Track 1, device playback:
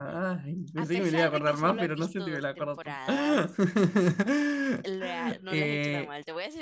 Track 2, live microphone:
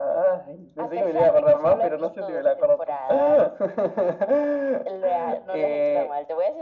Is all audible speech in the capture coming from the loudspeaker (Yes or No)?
Yes